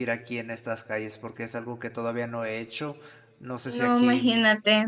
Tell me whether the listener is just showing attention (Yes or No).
No